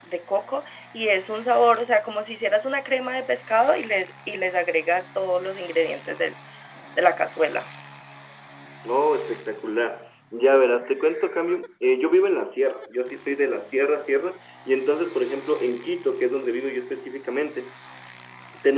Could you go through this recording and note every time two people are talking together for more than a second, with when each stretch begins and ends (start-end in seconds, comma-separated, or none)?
none